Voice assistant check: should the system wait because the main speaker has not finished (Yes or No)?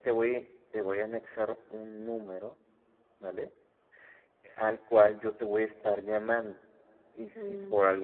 Yes